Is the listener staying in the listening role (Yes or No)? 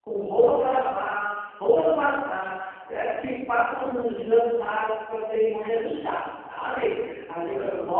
Yes